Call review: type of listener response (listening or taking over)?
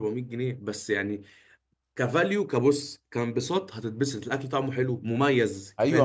taking over